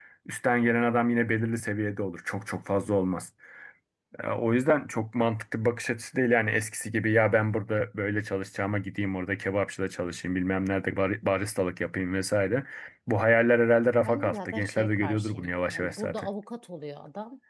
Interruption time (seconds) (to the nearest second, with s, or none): 14 s